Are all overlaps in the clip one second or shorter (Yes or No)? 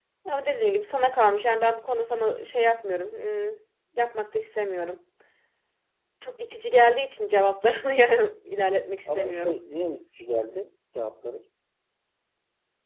Yes